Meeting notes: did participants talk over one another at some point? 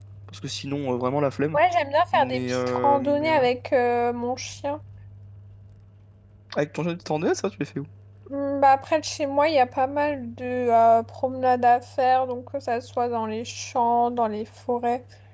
Yes, from 2.1 s

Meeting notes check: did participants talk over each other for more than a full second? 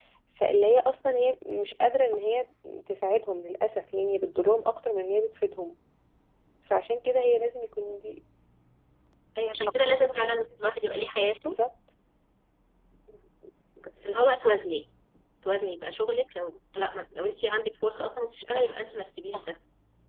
No

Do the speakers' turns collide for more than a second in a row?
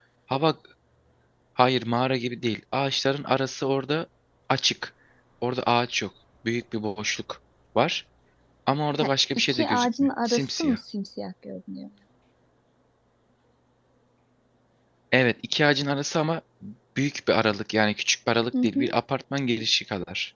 Yes, from 9.0 s

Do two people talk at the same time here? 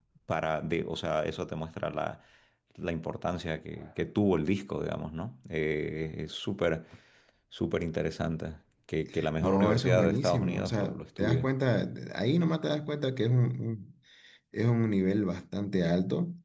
Yes, from 9.2 s

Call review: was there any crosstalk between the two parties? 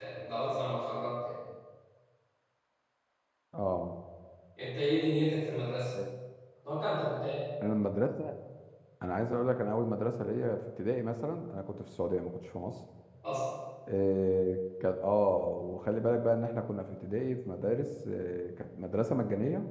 No

